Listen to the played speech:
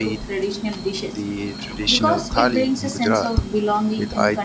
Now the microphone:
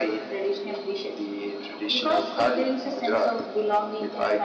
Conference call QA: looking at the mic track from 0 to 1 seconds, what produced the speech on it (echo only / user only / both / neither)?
echo only